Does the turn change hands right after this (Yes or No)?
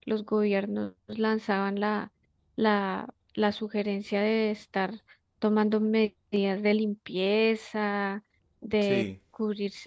No